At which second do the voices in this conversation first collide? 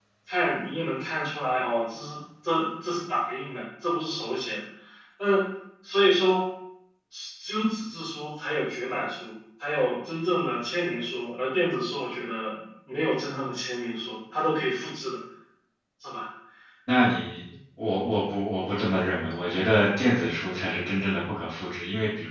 none

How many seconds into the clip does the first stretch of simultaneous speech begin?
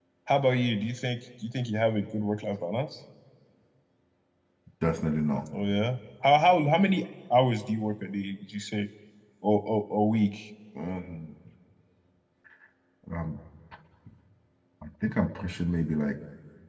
none

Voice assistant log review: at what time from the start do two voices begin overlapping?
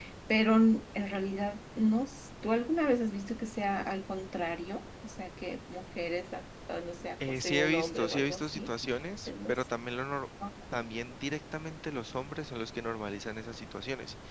7.3 s

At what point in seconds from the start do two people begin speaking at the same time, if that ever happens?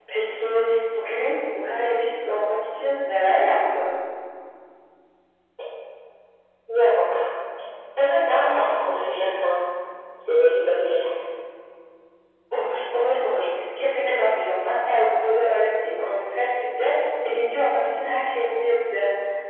none

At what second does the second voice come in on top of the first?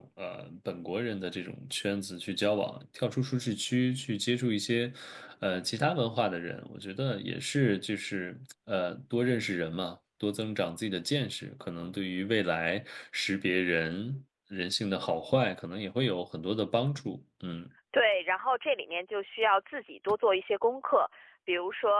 none

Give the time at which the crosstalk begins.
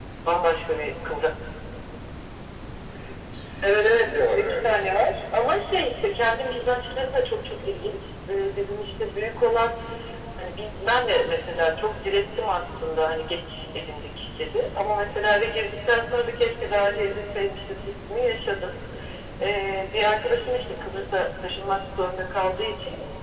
3.6 s

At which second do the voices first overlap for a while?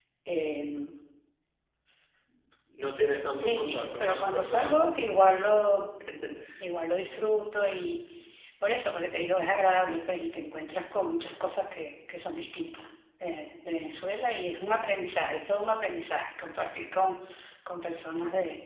3.4 s

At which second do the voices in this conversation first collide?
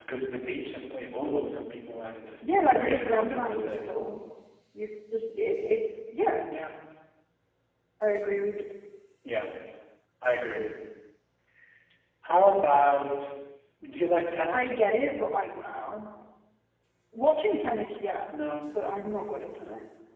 2.4 s

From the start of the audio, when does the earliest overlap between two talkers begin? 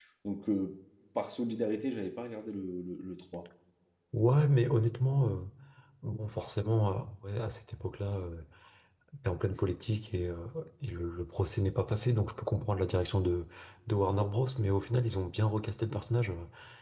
none

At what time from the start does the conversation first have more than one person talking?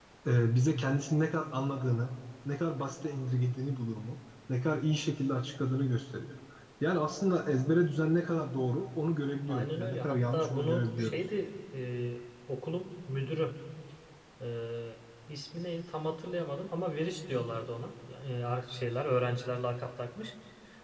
9.5 s

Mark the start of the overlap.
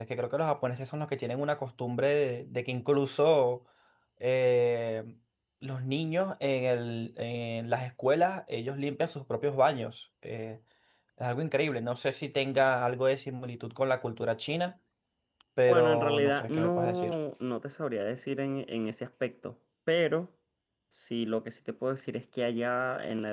15.7 s

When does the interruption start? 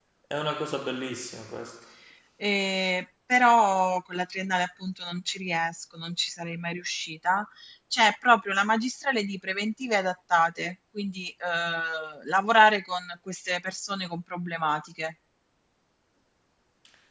none

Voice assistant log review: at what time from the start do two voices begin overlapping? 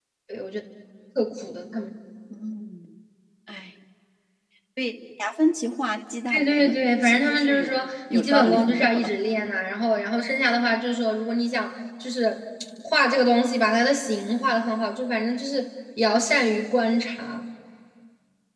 6.3 s

